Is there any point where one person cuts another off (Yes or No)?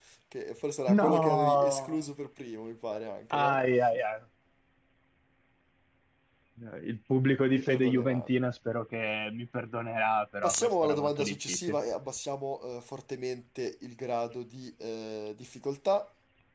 Yes